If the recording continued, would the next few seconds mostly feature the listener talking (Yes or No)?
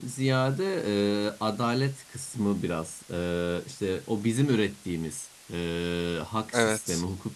No